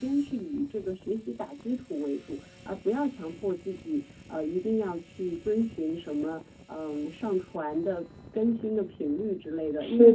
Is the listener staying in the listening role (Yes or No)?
Yes